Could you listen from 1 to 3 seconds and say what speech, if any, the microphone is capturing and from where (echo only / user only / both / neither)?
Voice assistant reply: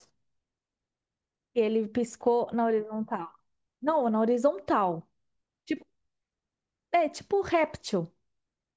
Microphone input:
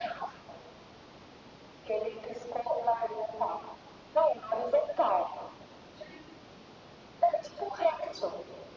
echo only